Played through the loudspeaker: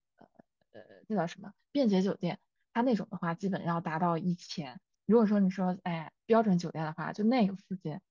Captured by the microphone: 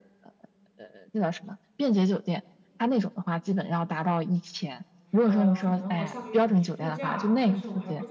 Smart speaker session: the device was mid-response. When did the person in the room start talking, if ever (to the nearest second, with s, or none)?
5 s